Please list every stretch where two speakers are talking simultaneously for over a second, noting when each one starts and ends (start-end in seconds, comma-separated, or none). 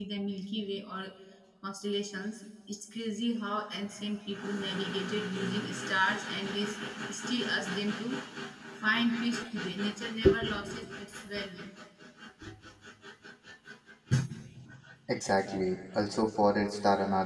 none